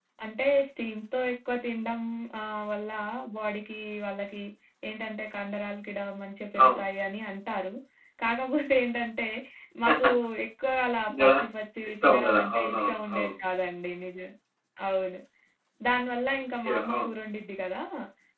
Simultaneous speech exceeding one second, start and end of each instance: 11.9-13.3

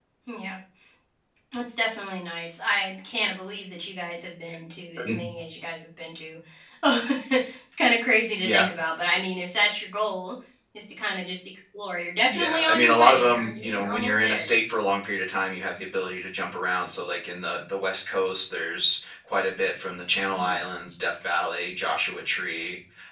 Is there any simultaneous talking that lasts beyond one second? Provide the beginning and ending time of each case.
12.3-14.5

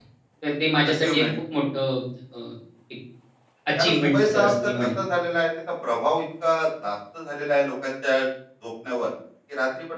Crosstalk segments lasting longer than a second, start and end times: 3.8-5.0

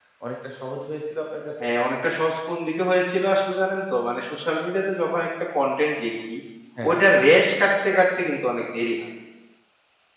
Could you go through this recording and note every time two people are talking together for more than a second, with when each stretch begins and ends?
none

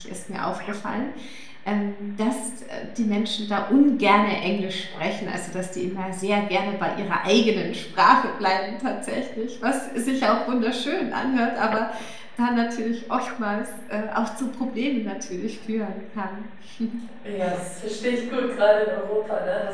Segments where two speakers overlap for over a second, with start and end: none

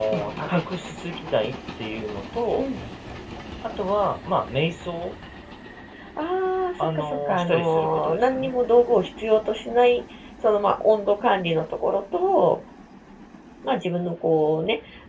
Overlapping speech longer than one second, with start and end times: 7.0-8.5

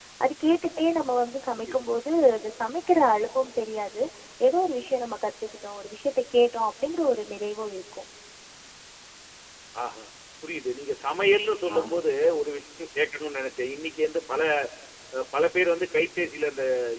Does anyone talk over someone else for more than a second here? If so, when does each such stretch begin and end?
none

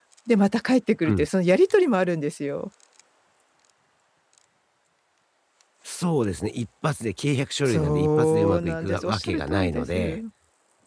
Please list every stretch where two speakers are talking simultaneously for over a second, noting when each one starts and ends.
7.6-10.2

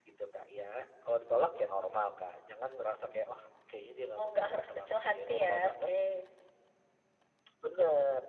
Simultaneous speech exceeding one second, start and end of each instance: 4.2-5.9

